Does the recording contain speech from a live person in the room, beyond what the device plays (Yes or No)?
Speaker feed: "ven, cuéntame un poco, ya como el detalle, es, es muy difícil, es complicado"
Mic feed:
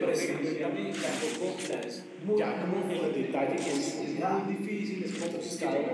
Yes